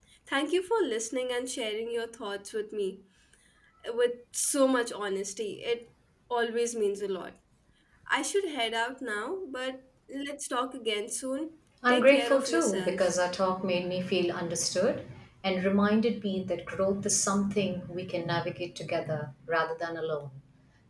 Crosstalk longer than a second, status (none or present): present